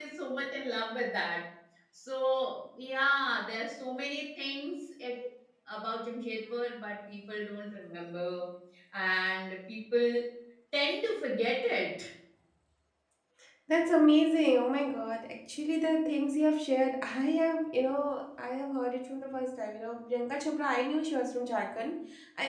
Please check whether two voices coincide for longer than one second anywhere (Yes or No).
No